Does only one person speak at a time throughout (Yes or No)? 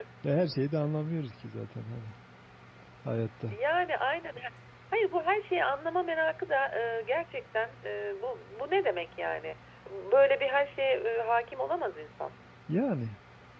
Yes